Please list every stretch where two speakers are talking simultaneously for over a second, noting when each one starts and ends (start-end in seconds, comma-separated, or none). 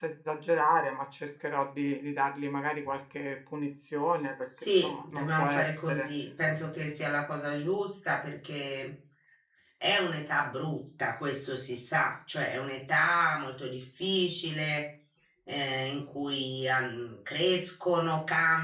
4.6-6.1